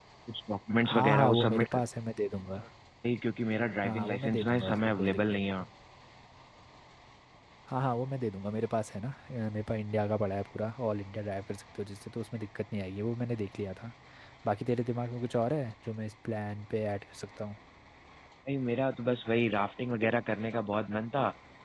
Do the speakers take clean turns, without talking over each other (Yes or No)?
No